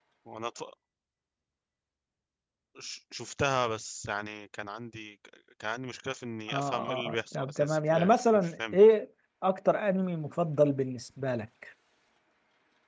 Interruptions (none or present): present